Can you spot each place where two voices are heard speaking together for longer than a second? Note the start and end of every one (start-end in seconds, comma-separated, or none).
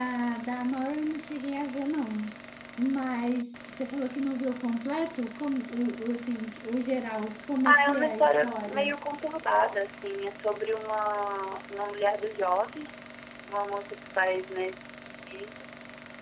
7.7-8.9